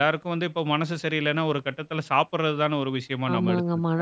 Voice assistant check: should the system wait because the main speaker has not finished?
No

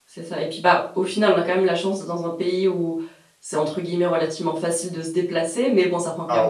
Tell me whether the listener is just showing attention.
Yes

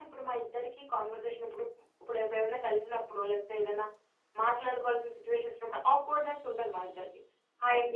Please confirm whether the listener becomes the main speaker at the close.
No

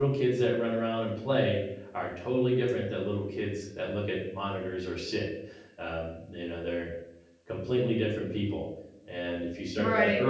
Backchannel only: Yes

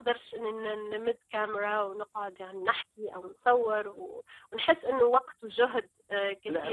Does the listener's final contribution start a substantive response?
Yes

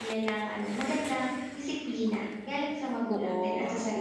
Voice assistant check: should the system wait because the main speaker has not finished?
No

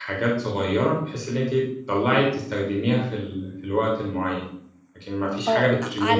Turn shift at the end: Yes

